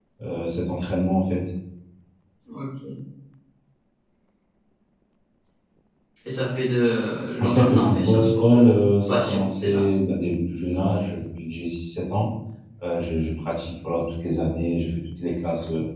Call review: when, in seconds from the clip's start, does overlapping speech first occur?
7.4 s

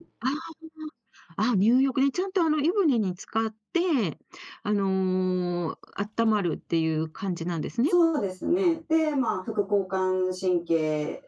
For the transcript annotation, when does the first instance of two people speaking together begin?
none

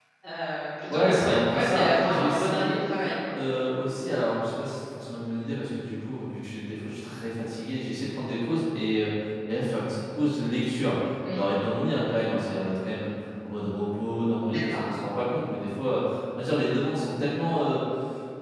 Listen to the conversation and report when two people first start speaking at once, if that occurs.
0.9 s

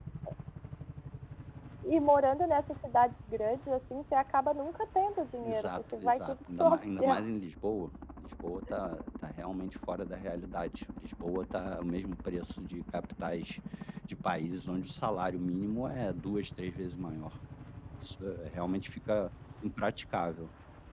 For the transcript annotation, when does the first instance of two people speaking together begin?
5.4 s

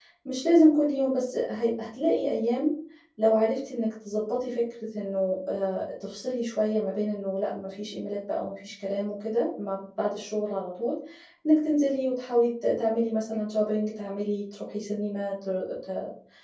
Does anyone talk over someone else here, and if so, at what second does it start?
none

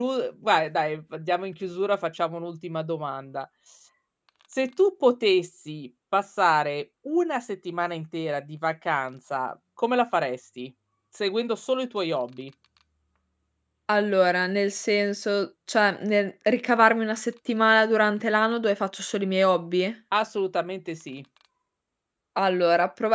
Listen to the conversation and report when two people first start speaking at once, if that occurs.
none

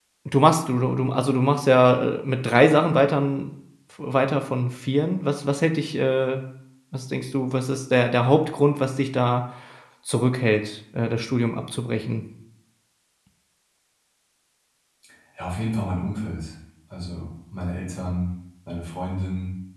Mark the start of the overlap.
none

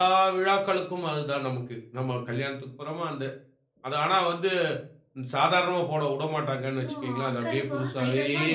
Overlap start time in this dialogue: 6.8 s

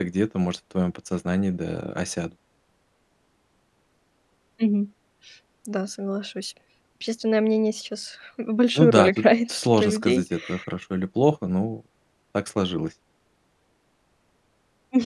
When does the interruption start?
8.8 s

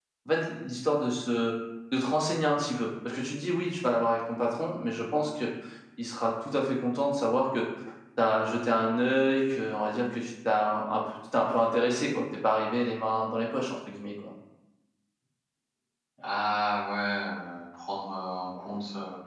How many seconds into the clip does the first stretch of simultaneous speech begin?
none

